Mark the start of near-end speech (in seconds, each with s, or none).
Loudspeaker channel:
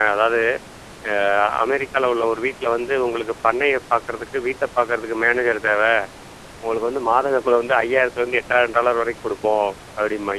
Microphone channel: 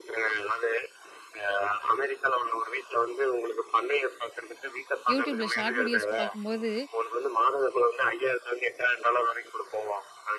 5.1 s